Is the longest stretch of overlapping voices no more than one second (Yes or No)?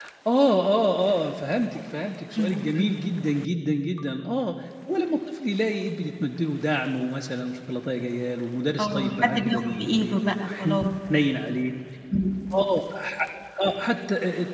No